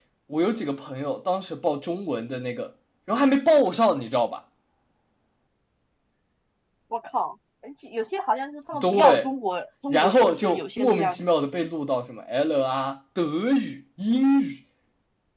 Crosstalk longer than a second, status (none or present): present